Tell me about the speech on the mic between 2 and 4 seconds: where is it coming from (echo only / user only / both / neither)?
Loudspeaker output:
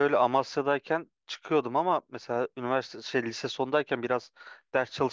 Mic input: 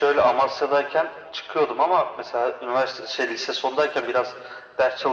echo only